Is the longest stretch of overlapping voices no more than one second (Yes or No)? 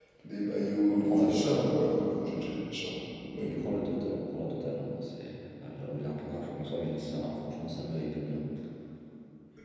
No